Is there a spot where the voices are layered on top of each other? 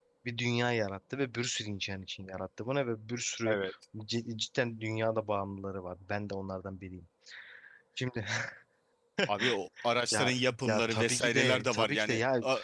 Yes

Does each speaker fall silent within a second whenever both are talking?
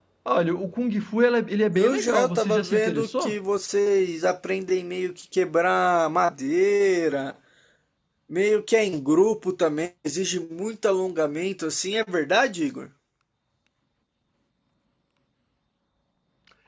No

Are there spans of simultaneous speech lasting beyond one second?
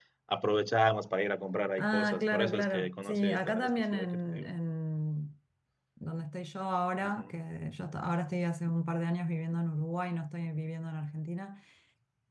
Yes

